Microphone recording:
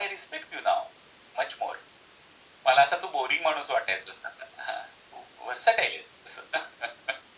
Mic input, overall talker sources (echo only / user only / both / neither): echo only